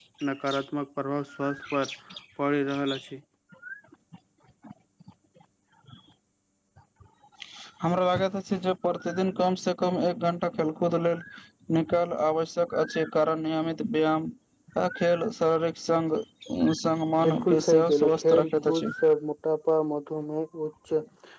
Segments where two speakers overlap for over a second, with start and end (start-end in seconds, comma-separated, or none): 17.2-18.9